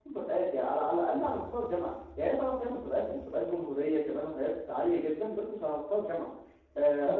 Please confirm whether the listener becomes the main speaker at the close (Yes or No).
No